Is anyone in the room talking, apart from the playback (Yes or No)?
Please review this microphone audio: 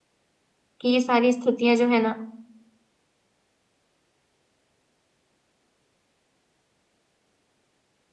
Yes